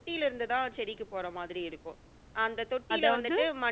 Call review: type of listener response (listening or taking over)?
listening